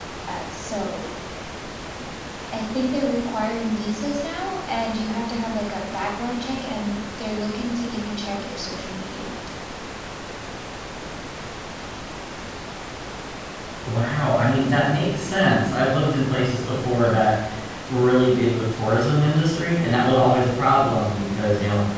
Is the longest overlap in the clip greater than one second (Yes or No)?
No